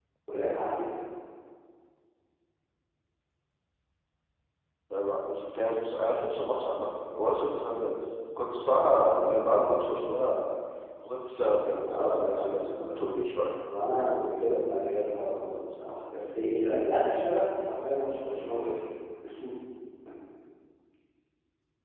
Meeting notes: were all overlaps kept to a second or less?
No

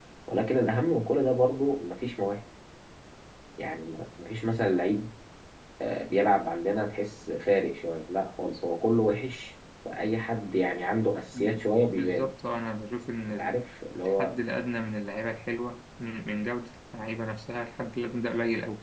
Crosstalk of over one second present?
No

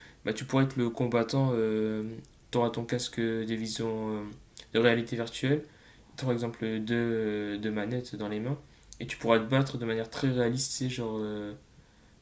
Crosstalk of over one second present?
No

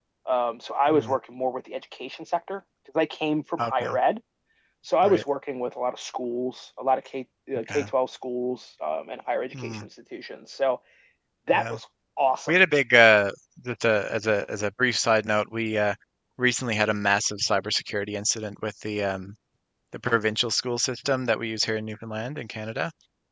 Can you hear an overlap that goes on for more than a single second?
No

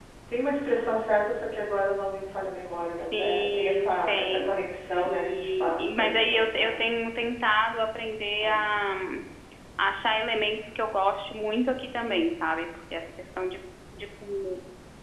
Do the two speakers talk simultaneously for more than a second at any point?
Yes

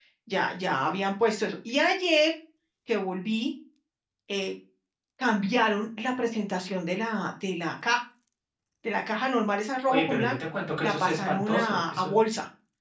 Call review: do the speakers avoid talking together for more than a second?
No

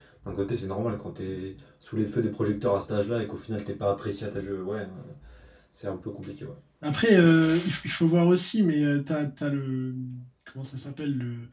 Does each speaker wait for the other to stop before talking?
Yes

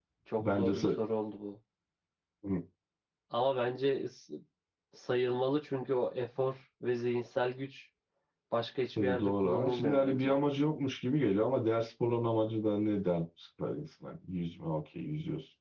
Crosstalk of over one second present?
Yes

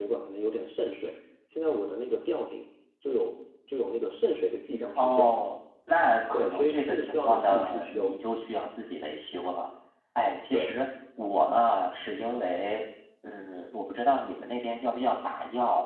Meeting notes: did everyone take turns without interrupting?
No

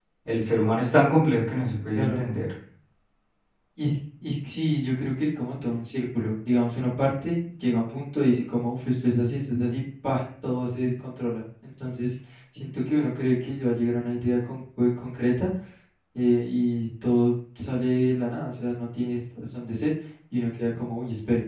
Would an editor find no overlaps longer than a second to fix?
Yes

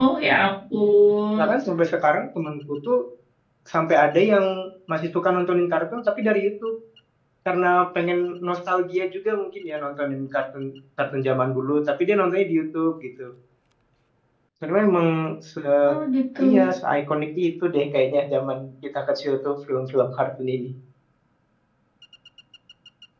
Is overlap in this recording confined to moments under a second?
Yes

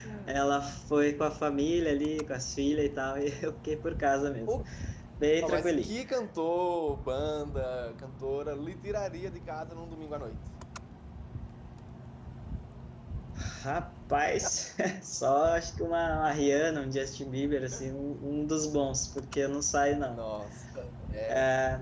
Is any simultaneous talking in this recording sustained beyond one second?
No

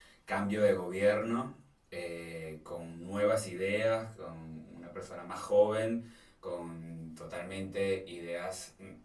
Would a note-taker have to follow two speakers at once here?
No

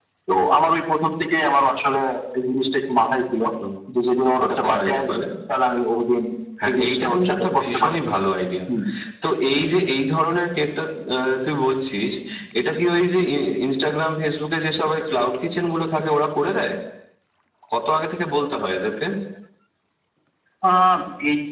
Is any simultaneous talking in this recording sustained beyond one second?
Yes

